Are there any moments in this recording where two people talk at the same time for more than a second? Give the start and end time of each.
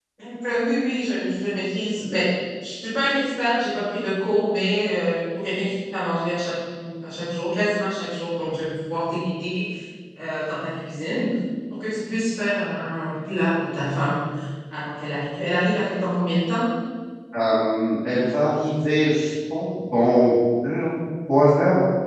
none

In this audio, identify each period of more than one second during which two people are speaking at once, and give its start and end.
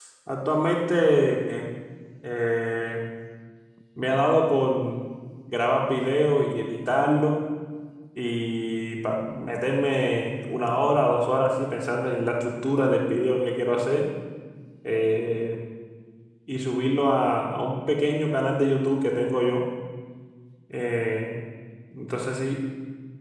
none

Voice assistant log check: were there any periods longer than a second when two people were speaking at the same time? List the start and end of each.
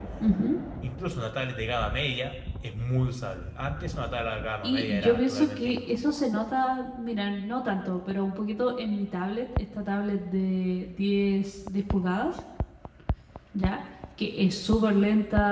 4.6-6.0

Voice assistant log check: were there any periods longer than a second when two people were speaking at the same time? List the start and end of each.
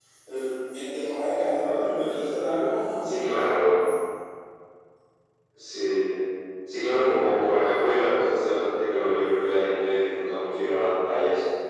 none

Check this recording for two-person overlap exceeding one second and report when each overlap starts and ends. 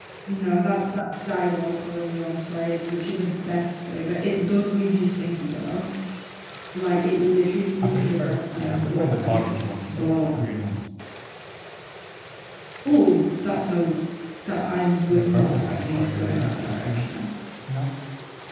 7.8-9.4, 15.1-17.0

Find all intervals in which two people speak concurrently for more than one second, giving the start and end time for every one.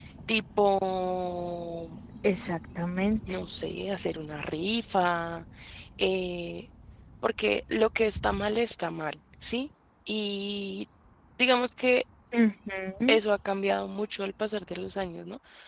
none

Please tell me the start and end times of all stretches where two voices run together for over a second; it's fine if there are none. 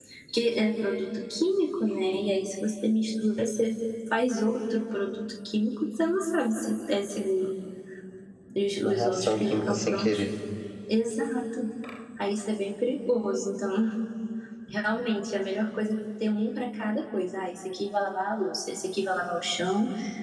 8.8-10.2

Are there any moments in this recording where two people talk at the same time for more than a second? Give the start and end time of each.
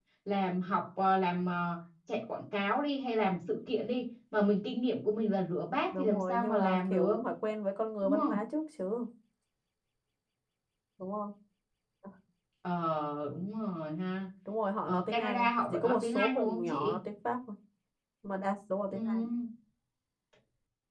5.9-7.1, 14.9-17.0

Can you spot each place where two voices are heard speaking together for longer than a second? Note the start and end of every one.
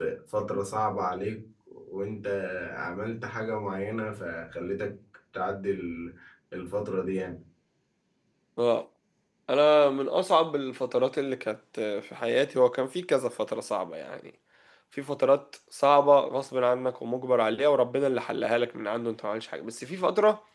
none

